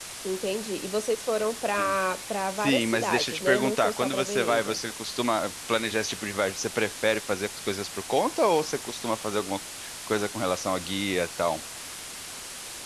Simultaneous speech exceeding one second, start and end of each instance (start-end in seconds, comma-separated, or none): 2.6-4.8